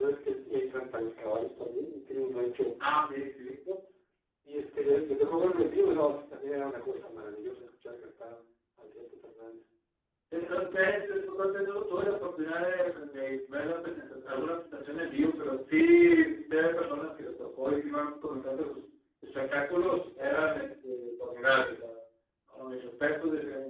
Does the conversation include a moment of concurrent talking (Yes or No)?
No